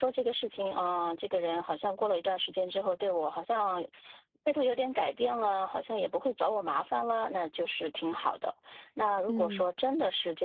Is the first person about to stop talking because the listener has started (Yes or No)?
No